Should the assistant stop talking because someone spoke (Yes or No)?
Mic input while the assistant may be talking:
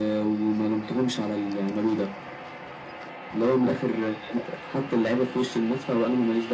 No